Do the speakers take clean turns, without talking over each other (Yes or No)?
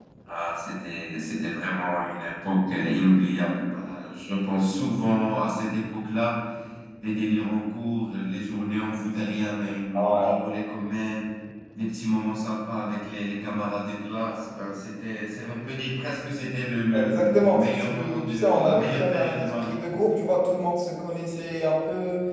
No